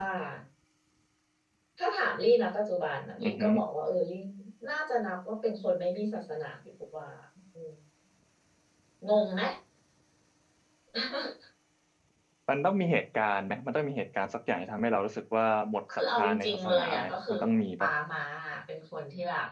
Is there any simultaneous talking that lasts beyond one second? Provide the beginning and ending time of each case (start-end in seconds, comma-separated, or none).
16.1-17.3